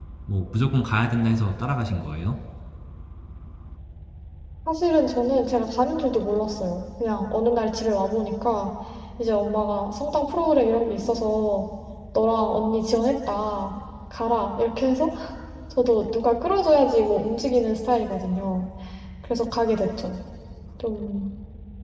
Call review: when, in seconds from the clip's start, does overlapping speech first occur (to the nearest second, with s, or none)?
none